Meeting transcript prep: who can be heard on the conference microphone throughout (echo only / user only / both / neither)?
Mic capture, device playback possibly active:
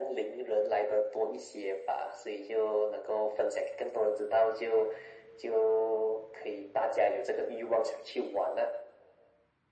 echo only